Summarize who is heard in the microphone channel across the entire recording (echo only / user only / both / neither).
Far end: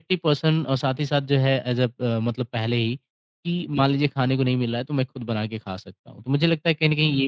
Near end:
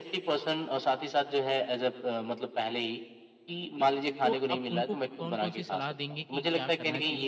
both